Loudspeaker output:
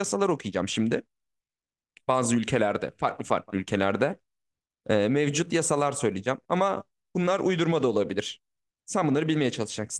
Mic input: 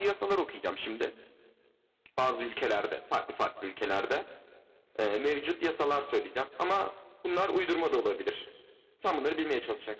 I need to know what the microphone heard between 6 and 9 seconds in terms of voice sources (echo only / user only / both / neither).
echo only